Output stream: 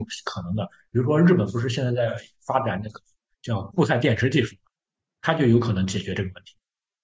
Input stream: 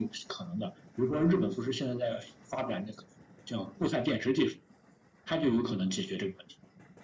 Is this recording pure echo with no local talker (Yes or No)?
Yes